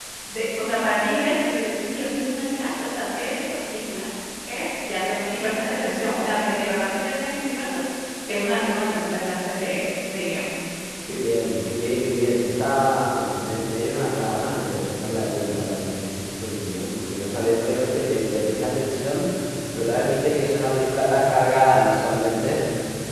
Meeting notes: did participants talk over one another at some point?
No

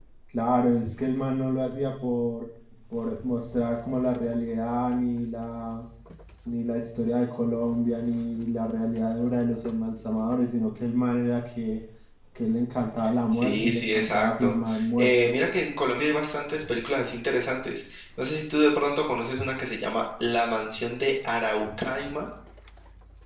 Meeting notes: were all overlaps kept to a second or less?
No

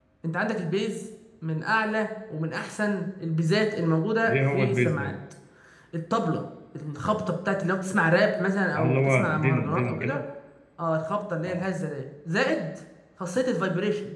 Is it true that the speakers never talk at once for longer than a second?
No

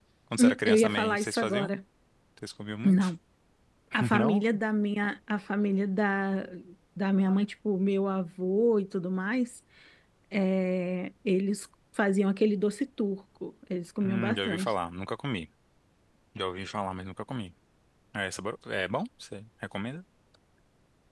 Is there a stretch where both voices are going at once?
Yes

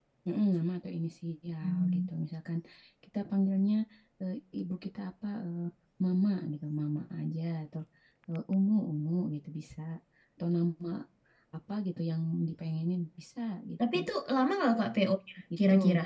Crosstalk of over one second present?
No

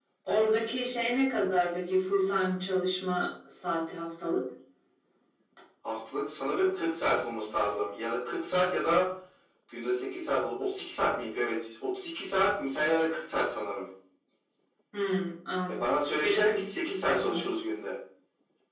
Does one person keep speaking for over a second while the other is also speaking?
Yes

